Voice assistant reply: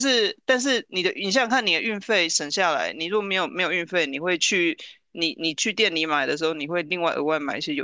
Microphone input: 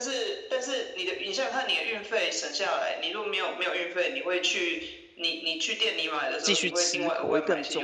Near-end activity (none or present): present